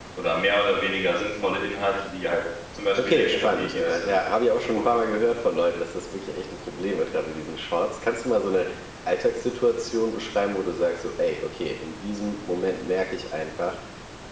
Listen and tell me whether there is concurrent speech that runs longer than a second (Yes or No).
Yes